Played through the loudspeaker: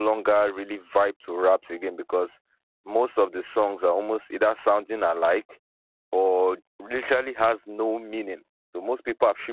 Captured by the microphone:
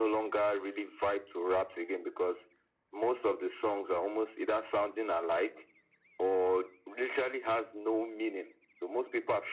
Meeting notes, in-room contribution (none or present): none